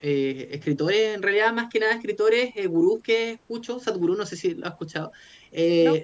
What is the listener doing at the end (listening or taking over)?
listening